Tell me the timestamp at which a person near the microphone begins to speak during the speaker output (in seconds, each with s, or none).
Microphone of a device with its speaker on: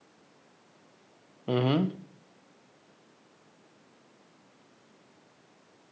1.5 s